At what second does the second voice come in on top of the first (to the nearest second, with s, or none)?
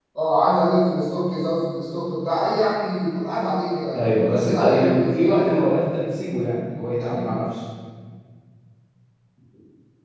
4 s